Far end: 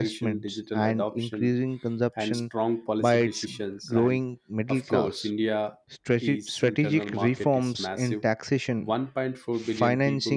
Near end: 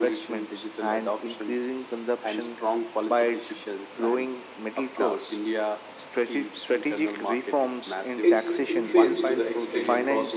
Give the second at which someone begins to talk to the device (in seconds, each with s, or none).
8.2 s